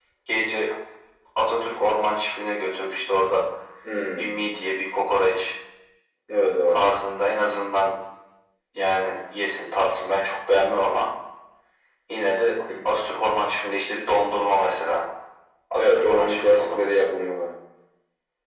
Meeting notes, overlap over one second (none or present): present